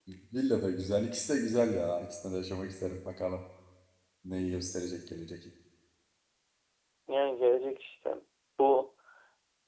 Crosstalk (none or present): none